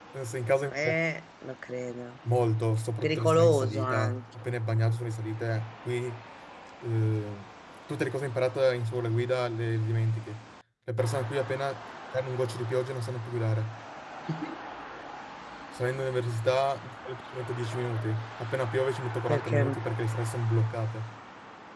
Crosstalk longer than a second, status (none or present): present